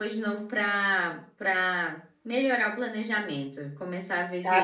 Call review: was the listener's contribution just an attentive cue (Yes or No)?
No